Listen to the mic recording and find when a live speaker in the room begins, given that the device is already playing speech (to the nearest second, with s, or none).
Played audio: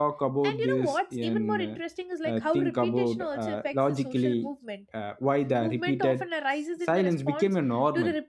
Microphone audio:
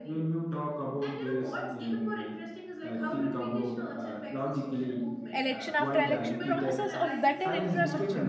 5 s